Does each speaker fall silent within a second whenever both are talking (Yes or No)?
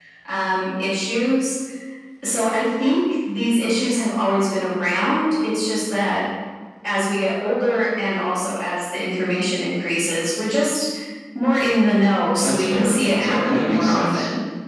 No